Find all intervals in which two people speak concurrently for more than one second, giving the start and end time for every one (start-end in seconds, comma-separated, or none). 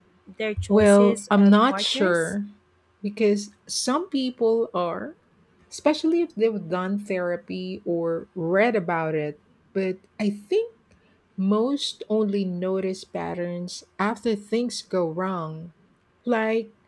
0.7-2.3